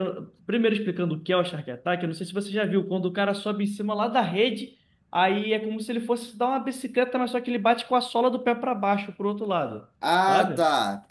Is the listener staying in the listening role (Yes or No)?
No